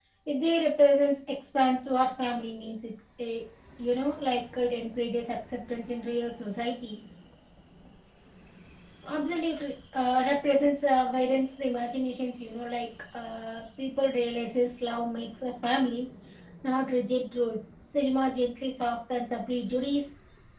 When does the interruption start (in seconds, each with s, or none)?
none